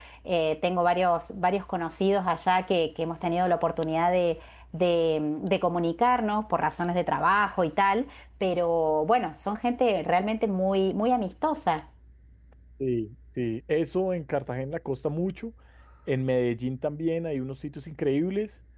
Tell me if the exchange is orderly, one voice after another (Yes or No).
Yes